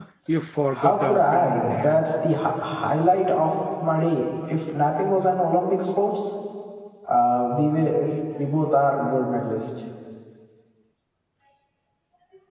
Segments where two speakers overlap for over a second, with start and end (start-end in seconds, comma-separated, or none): 0.8-2.0